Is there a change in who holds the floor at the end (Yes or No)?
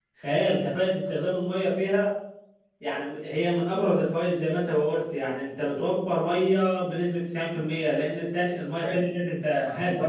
Yes